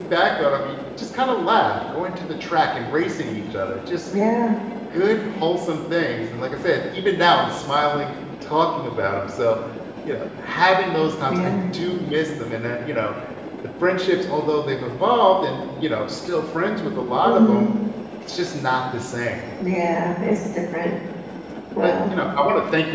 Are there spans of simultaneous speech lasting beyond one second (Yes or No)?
No